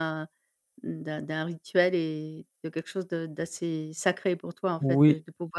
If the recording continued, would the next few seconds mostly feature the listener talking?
No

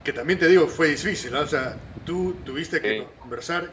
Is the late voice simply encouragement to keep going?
Yes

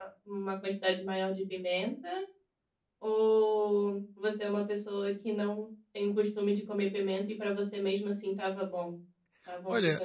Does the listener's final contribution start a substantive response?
Yes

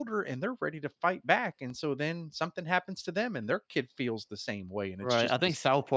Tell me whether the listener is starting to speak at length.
Yes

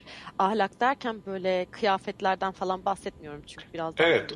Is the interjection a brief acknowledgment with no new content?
No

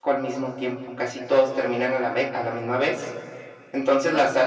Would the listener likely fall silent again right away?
Yes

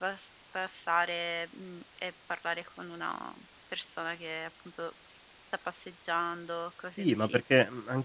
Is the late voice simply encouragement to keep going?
No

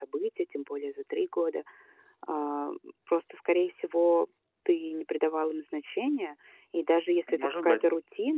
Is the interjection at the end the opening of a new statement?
No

